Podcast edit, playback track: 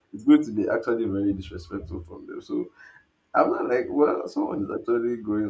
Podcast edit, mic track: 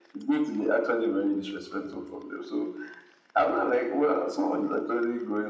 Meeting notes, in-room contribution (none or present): none